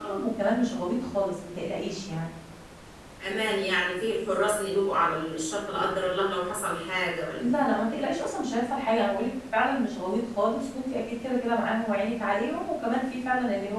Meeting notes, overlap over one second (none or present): none